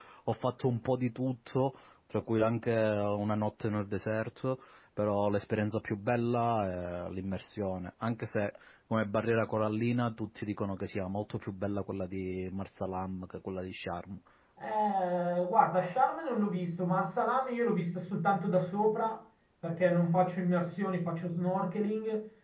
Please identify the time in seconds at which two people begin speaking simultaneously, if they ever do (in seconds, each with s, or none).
none